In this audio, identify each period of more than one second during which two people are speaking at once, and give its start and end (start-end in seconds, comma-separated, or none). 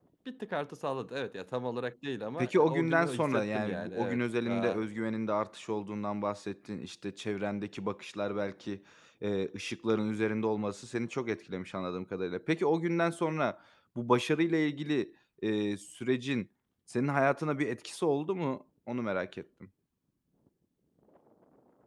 2.4-4.8